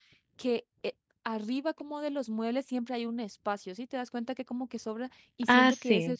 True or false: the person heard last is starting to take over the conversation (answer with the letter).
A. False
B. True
A